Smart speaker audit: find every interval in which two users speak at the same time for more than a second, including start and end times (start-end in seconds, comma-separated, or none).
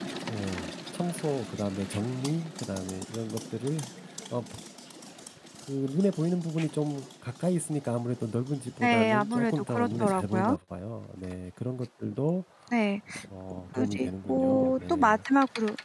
8.8-10.6, 13.8-15.2